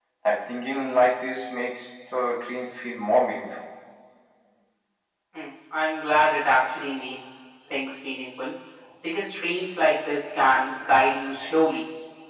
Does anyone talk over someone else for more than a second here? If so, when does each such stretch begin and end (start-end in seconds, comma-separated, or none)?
none